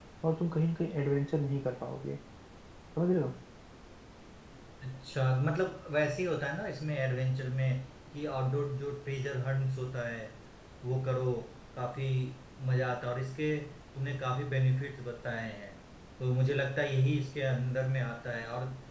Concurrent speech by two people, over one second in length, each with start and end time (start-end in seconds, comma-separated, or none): none